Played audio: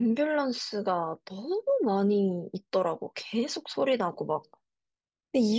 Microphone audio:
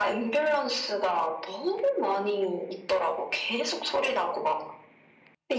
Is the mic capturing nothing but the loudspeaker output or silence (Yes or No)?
Yes